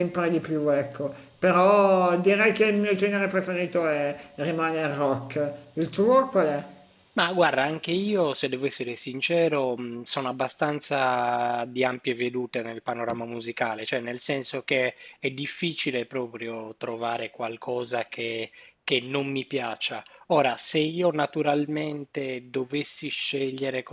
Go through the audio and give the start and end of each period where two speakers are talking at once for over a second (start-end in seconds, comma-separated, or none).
none